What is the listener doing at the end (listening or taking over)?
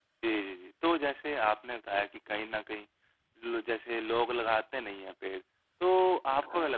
listening